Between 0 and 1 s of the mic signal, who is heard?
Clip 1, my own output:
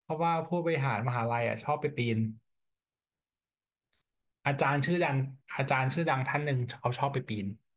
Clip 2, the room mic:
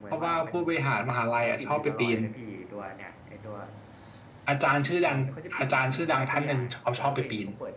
both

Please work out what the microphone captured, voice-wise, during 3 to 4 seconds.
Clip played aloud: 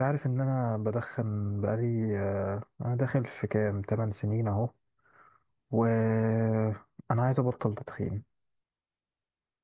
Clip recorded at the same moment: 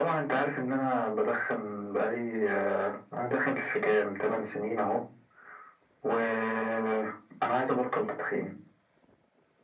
echo only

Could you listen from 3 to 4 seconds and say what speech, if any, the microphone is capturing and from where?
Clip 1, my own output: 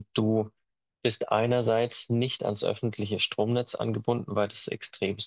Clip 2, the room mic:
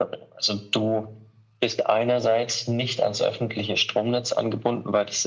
echo only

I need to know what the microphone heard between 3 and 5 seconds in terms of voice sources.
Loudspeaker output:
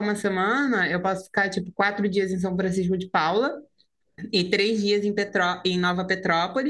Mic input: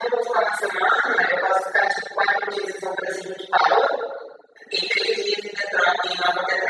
echo only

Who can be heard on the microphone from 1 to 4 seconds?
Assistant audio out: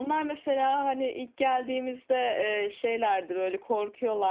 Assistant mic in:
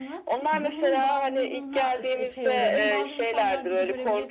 both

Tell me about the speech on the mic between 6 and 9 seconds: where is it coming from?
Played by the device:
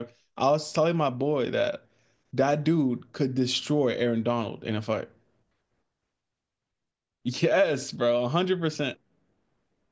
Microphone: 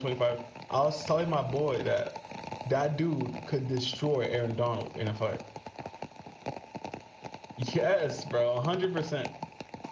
echo only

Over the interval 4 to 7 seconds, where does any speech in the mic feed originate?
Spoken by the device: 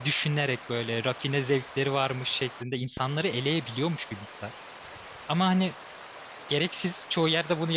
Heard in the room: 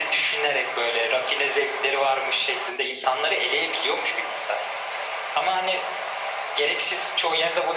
echo only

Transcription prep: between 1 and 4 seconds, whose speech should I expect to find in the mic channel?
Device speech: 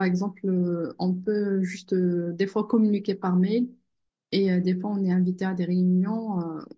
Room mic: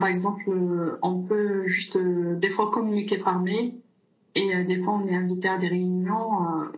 echo only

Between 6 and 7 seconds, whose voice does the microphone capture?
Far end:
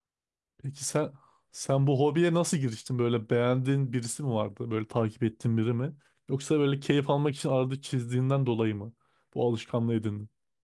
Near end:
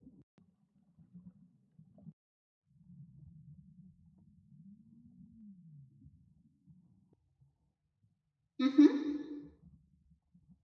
neither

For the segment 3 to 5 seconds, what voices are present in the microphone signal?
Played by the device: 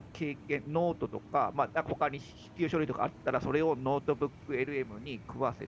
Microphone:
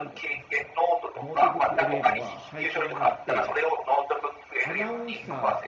both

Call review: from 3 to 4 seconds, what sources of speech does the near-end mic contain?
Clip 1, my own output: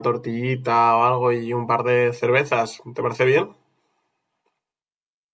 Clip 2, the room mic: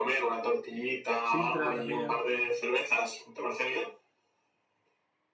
echo only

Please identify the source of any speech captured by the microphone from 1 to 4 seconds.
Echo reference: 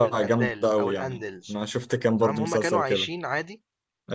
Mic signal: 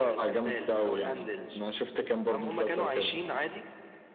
echo only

